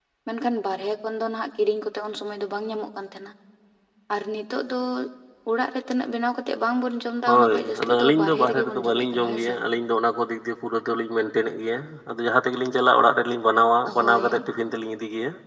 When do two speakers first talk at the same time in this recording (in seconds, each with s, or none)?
7.3 s